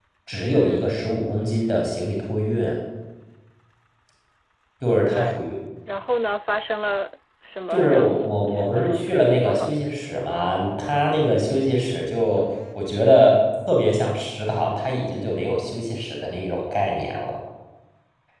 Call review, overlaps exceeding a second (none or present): present